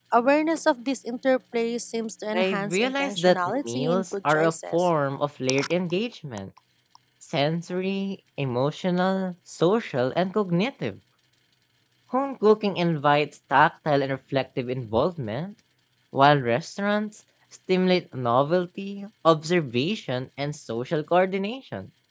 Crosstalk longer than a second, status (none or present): present